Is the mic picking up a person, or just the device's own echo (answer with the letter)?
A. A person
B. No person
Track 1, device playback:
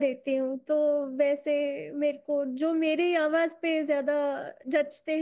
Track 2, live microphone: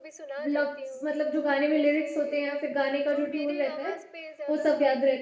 A